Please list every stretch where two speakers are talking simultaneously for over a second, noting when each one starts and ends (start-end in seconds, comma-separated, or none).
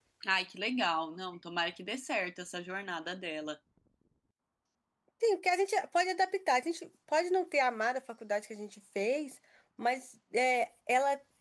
none